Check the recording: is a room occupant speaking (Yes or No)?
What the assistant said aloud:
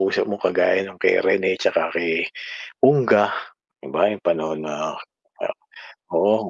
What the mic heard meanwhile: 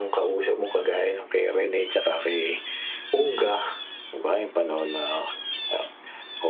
No